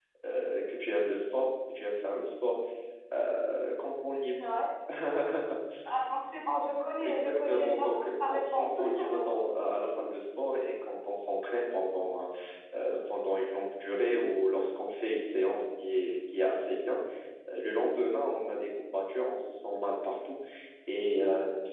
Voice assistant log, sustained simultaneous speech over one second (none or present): present